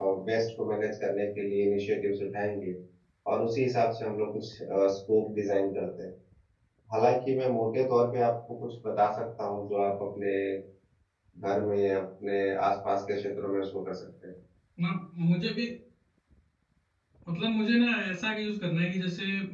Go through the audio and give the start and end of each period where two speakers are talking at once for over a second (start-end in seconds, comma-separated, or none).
none